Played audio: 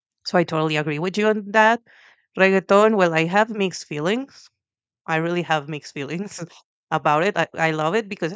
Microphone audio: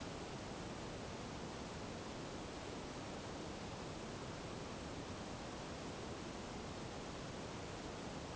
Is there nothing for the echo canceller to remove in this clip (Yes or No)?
Yes